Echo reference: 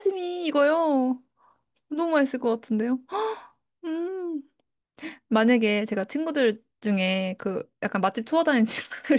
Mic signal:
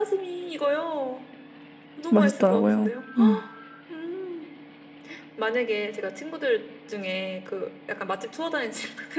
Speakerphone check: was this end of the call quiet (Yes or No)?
No